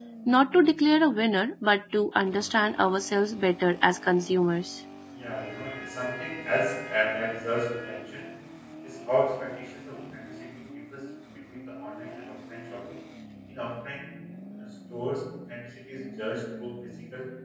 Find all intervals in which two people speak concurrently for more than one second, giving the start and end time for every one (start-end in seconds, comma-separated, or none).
none